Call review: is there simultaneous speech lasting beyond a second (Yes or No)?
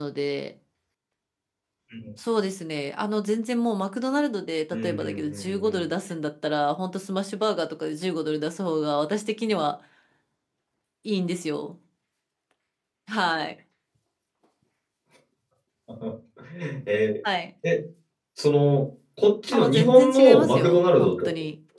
Yes